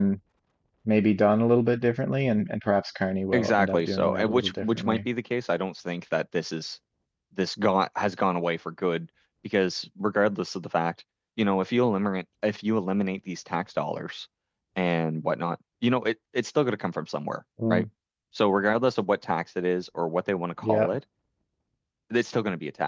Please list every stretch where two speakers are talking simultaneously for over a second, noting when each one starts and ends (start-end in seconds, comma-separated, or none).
3.3-5.0